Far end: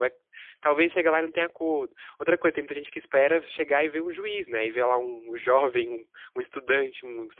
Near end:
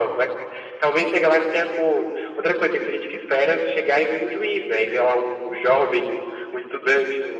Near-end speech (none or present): none